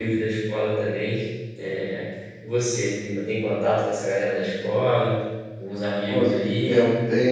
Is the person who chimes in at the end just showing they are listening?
No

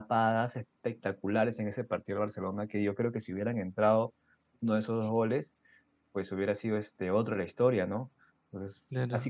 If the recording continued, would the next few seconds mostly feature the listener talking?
No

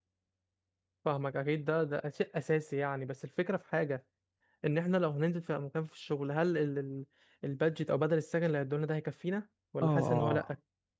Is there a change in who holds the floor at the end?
Yes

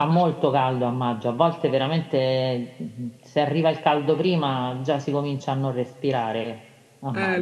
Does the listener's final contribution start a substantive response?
Yes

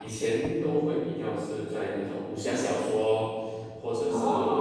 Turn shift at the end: No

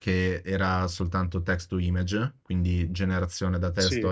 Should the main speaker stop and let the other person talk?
No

